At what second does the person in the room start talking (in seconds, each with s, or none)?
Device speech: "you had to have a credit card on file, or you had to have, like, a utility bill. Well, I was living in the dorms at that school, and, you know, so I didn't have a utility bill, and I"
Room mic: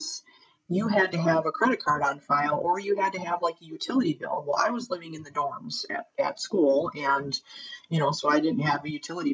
none